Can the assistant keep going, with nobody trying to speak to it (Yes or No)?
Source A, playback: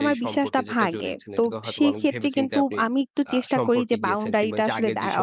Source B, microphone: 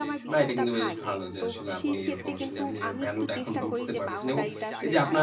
No